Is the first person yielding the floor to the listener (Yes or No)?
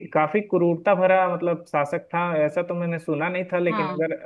No